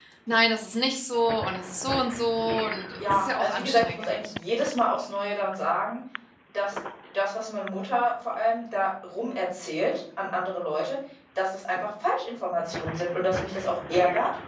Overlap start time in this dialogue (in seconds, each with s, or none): 3.0 s